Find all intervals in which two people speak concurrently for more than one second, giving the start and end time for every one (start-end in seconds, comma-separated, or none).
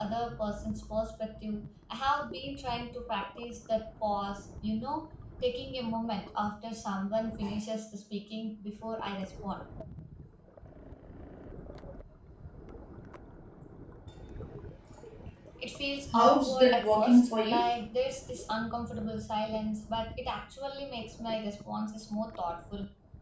16.1-17.6